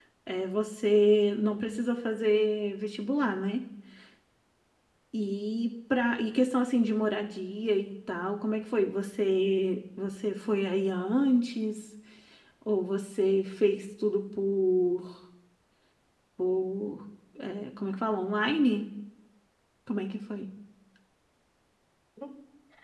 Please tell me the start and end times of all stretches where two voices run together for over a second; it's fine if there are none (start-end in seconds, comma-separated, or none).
none